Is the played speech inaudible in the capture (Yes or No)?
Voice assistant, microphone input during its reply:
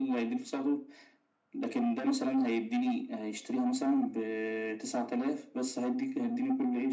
No